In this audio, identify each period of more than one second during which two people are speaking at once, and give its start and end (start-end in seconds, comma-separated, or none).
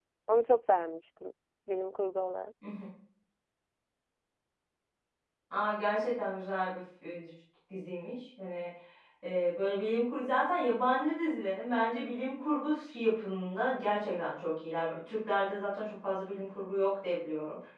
none